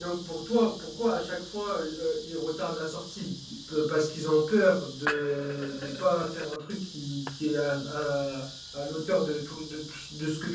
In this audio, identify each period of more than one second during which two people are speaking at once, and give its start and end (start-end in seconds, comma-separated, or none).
none